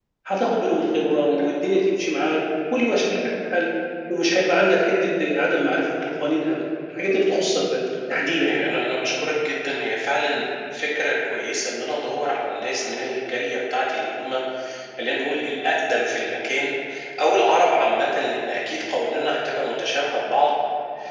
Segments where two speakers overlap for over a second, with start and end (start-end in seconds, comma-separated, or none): none